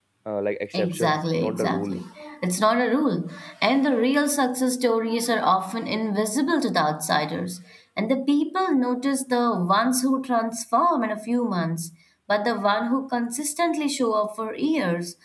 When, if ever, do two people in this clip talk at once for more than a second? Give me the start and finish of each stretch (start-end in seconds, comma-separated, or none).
0.7-2.0